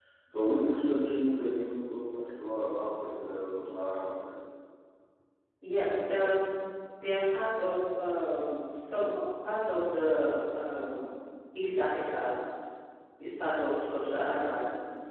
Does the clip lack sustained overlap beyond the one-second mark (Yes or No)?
Yes